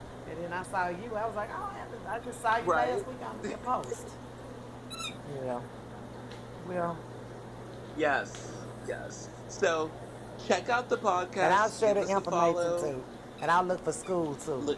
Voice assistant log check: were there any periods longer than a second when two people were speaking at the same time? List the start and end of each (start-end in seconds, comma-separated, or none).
11.4-12.9